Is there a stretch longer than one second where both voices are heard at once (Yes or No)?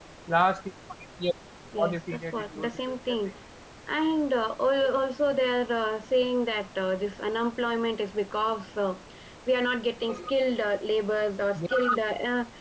Yes